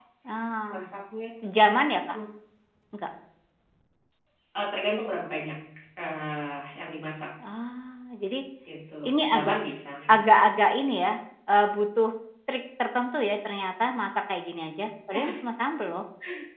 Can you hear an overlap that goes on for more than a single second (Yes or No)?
No